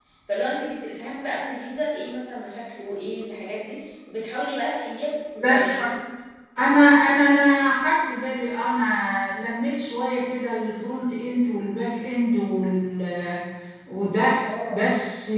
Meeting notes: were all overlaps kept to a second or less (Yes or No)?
Yes